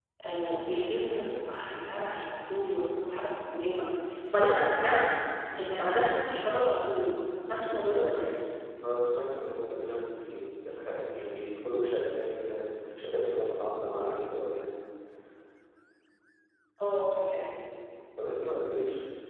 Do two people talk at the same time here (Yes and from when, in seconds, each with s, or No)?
No